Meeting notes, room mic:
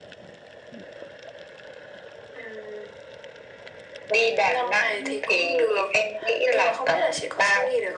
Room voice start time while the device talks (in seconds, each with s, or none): none